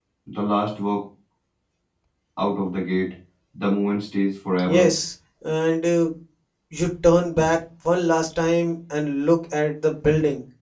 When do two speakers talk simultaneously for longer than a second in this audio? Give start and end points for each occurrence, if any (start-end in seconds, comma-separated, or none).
none